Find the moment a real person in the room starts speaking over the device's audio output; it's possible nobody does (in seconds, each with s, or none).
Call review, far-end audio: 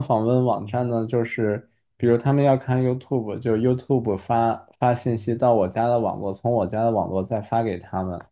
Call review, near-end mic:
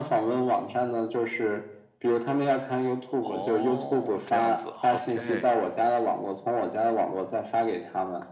3.2 s